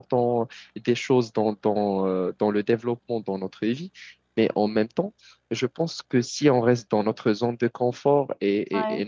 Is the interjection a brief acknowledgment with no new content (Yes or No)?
Yes